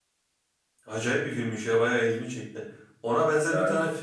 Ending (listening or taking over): listening